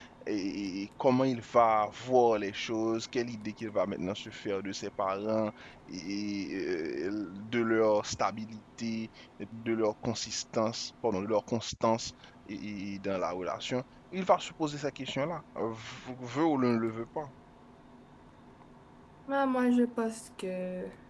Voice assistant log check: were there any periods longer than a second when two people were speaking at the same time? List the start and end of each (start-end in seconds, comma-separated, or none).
none